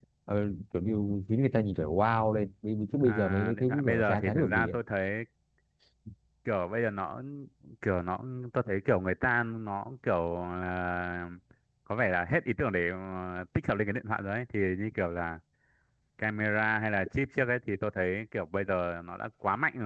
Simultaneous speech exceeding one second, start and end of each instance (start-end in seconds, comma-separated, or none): 3.0-4.8